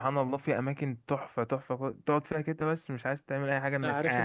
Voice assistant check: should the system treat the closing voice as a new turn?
Yes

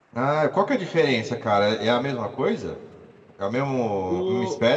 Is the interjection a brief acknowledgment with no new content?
No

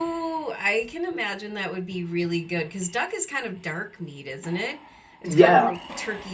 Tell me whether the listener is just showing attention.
Yes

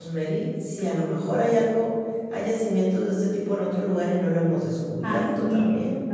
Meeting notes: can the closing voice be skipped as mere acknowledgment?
No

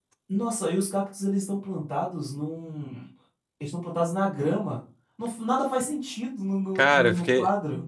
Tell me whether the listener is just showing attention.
No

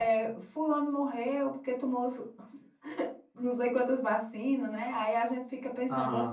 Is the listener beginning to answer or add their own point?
No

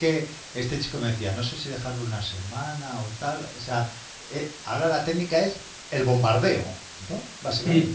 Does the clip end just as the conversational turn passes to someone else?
Yes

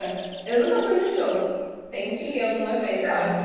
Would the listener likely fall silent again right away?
No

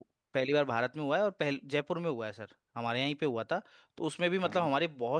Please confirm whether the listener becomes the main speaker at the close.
No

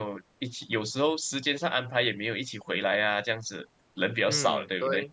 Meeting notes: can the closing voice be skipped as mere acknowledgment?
No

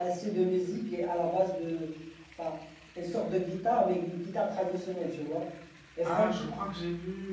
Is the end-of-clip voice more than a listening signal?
Yes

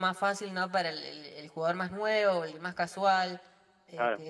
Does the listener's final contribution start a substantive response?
No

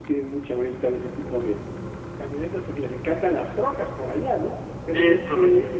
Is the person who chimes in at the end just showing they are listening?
Yes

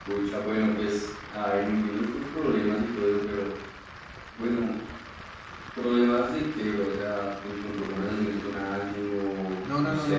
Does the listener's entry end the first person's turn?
Yes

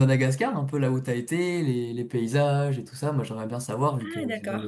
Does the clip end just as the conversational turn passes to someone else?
Yes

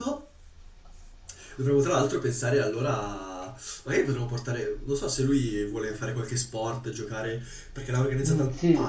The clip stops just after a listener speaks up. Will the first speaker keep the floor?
No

